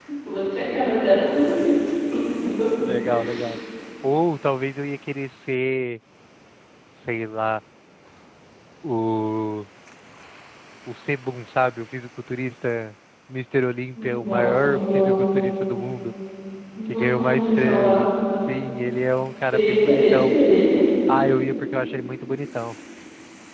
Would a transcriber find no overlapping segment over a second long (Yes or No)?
No